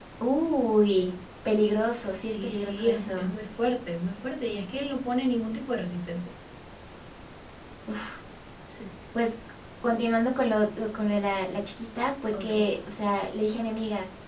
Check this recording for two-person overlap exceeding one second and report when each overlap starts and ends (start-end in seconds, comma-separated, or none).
1.8-3.1